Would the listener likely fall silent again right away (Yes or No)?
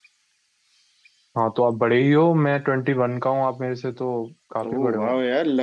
No